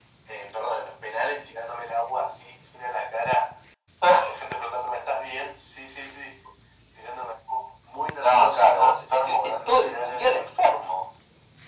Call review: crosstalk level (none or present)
present